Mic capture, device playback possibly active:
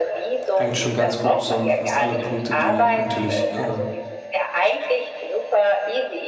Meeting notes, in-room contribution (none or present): present